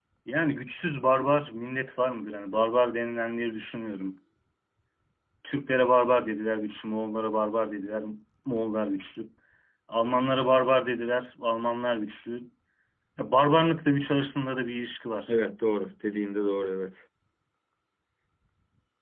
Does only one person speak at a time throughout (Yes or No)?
Yes